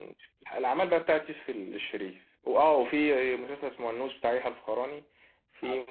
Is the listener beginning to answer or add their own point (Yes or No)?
No